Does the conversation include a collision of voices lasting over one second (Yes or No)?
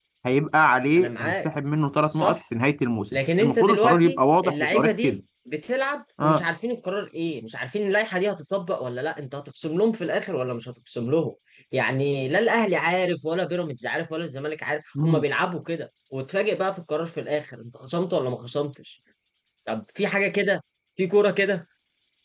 Yes